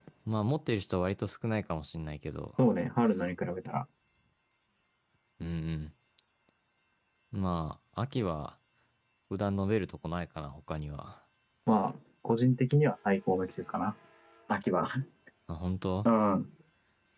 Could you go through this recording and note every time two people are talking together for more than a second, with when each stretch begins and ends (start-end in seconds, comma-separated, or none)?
none